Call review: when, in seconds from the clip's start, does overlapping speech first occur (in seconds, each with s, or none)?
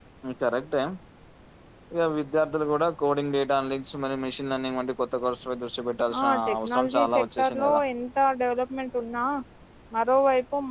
6.1 s